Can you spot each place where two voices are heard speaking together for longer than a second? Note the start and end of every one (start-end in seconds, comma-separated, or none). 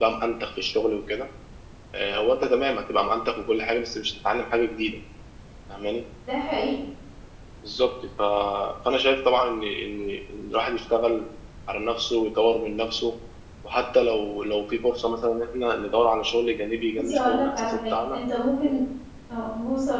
17.0-18.2